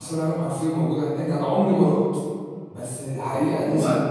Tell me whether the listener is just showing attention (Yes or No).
Yes